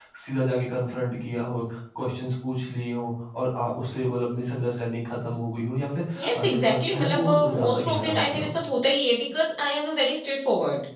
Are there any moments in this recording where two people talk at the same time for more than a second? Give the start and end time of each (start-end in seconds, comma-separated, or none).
6.2-8.6